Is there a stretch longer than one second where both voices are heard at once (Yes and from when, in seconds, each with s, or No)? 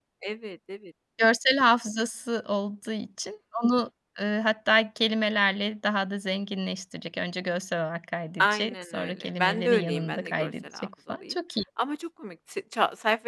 Yes, from 8.4 s